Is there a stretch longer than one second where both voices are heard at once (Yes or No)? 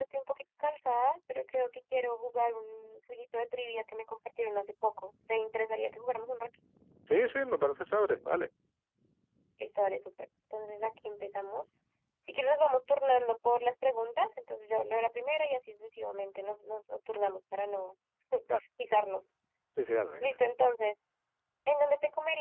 No